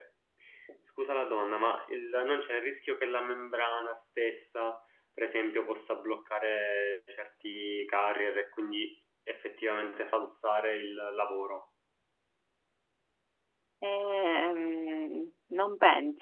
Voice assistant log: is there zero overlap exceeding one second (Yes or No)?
Yes